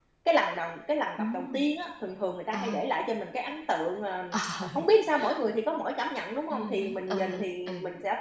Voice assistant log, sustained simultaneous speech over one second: present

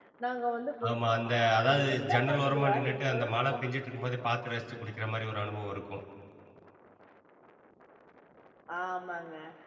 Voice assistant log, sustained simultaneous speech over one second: present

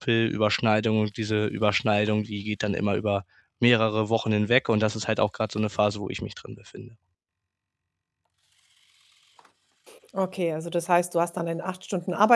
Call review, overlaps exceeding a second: none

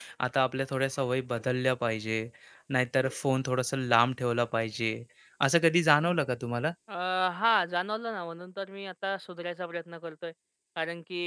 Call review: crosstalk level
none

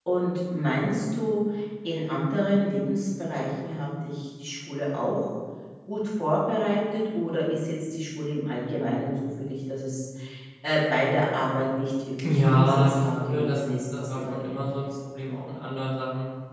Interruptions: present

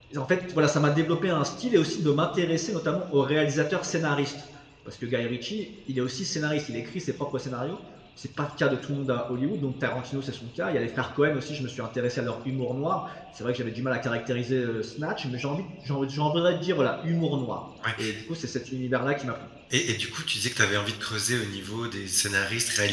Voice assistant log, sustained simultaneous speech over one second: none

